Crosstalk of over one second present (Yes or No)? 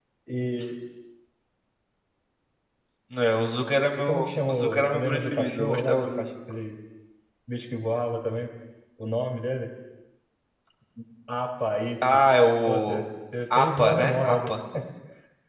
Yes